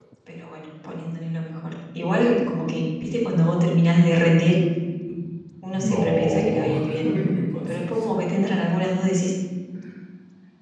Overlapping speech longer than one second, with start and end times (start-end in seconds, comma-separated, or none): 5.7-7.1